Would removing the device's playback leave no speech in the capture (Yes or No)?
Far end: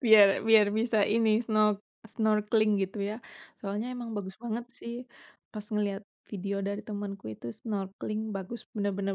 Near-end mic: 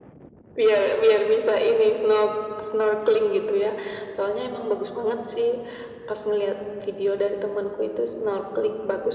Yes